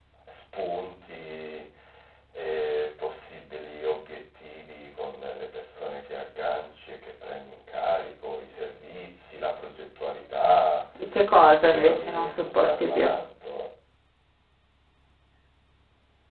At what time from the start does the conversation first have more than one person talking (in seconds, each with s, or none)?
11.7 s